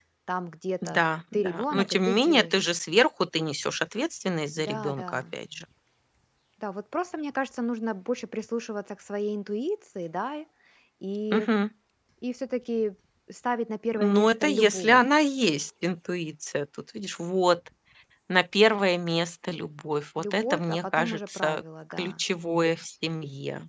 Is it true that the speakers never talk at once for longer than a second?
No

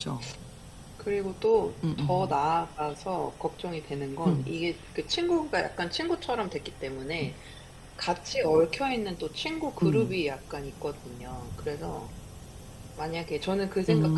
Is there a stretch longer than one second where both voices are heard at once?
No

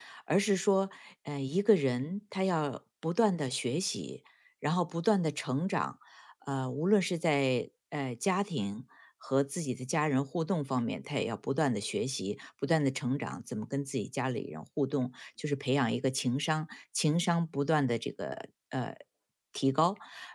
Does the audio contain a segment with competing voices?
No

